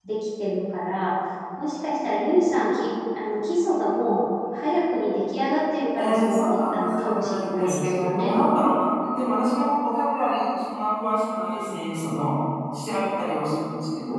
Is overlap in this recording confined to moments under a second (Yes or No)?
No